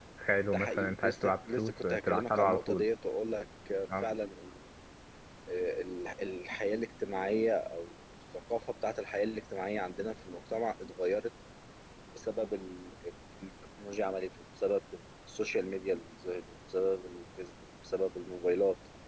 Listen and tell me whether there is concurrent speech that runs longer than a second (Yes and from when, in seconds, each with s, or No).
Yes, from 0.5 s